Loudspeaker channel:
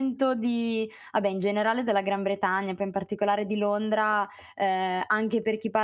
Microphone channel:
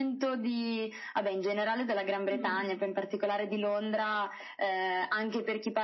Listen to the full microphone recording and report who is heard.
both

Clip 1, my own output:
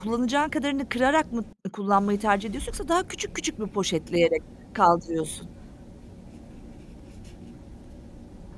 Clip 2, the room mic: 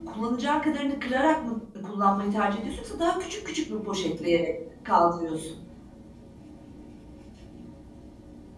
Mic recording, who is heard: echo only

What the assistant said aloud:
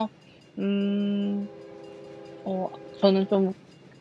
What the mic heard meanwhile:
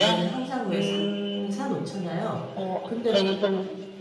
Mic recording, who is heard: both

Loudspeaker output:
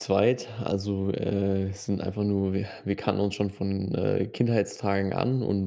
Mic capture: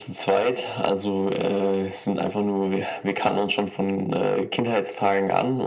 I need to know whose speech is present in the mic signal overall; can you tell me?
echo only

